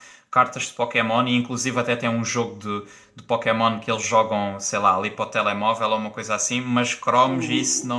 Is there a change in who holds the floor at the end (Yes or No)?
No